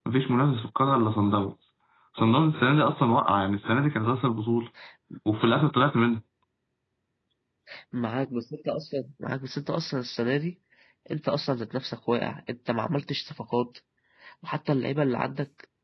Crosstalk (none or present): none